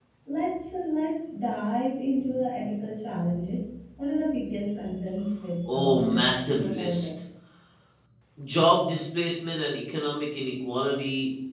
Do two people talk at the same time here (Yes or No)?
Yes